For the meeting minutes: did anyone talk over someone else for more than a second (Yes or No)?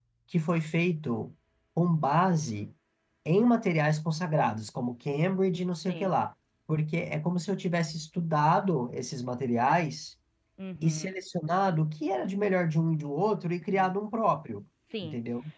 No